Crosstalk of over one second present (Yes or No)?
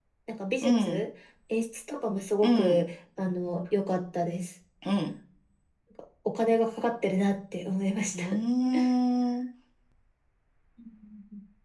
No